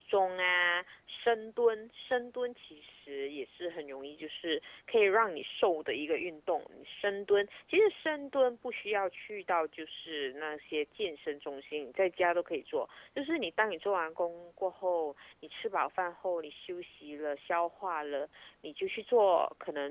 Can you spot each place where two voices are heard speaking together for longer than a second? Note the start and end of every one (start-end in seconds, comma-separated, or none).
none